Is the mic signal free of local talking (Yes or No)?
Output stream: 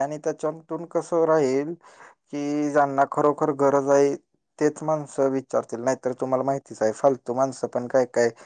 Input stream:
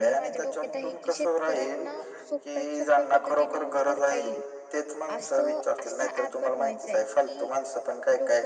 No